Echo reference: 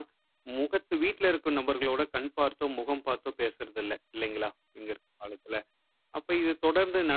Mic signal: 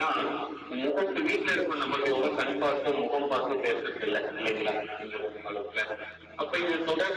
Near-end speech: none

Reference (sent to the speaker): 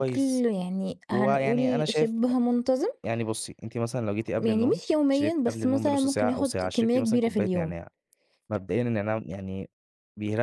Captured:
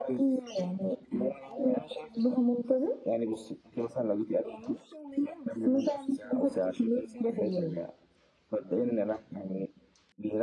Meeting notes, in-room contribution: none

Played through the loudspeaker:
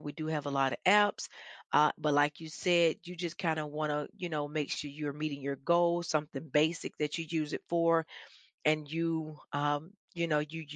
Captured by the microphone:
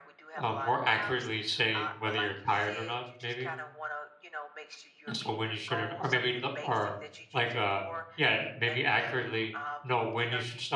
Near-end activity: present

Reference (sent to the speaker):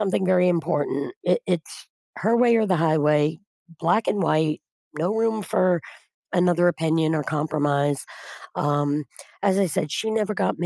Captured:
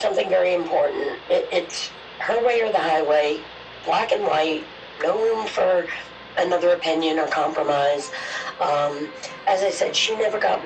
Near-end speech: none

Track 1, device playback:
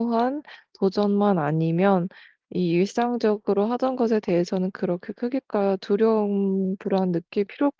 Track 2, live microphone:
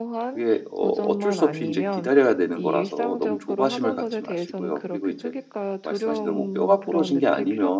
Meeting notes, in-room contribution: present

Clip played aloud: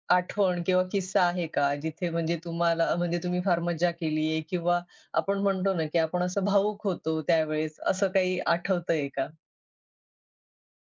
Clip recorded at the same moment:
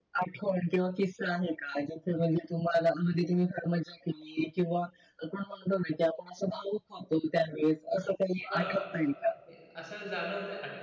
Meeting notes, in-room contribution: present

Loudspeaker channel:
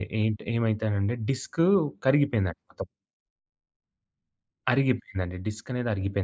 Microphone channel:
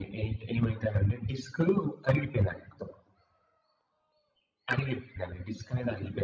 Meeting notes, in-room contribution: none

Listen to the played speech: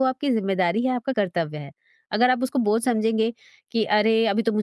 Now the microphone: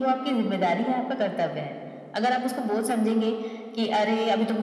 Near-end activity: none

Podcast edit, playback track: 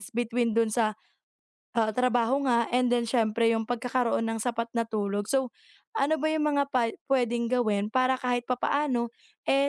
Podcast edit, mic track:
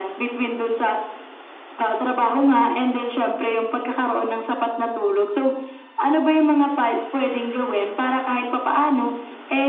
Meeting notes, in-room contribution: none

